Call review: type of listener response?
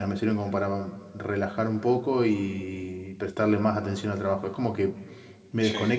listening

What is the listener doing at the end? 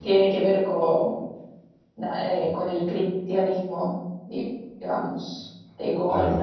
listening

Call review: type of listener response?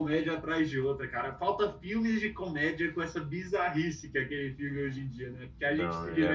taking over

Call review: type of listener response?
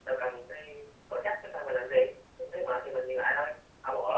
listening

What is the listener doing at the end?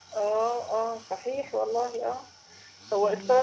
listening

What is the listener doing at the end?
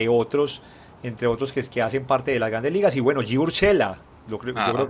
listening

